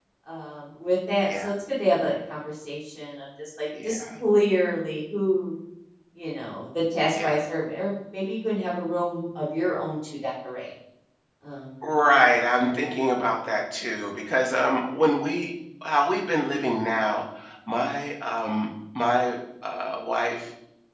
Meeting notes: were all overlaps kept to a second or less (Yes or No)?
Yes